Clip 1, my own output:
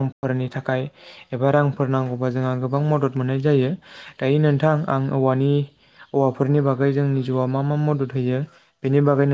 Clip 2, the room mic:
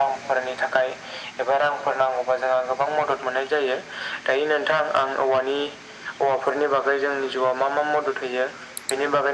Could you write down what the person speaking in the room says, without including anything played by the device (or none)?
none